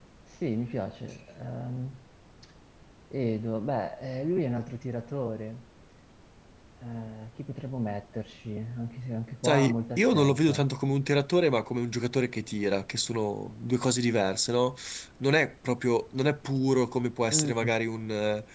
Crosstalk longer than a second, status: present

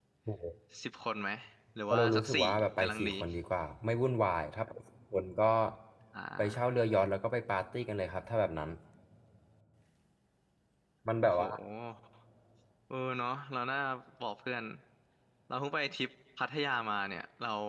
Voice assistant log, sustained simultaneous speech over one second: present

